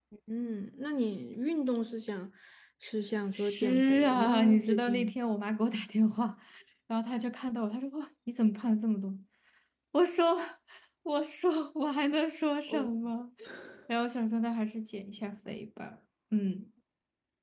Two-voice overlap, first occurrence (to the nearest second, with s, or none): 3 s